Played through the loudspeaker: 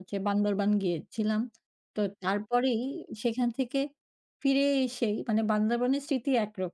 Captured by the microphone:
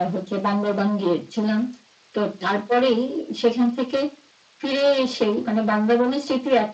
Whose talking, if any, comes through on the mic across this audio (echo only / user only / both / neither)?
echo only